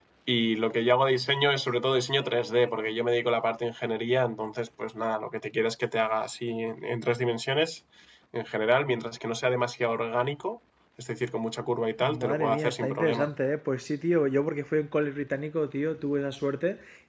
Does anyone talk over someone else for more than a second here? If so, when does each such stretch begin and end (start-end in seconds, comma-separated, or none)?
12.0-13.3